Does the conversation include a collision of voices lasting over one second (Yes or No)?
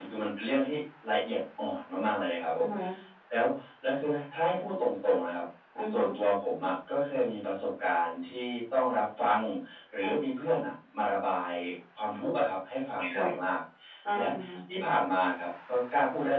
No